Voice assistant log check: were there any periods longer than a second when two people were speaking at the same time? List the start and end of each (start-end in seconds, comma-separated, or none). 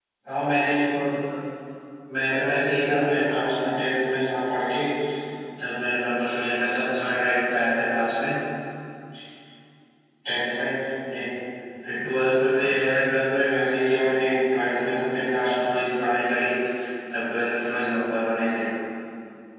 2.3-3.7